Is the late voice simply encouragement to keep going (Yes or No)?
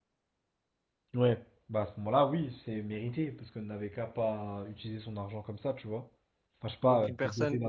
No